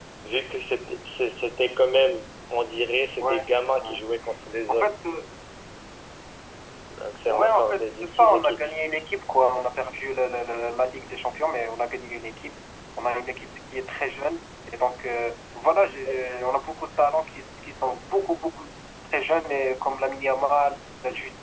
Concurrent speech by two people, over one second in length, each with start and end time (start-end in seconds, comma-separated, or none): 7.3-8.6